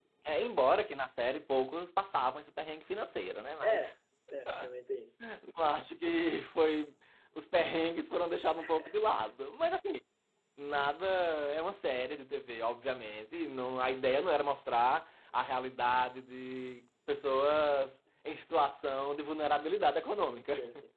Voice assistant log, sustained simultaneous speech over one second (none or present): none